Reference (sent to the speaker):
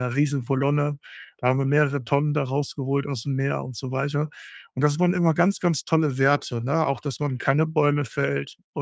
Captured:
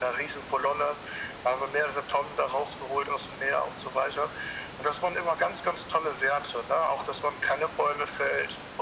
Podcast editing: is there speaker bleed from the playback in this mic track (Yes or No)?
Yes